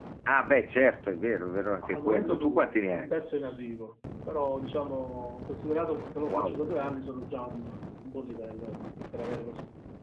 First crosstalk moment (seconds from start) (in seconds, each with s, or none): 1.8 s